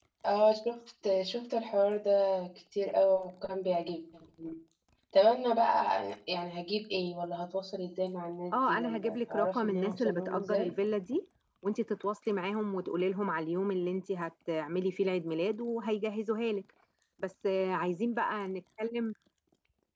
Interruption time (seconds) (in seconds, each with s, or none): 8.5 s